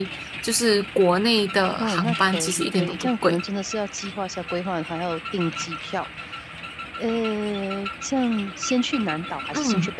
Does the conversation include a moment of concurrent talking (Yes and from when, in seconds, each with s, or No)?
Yes, from 1.8 s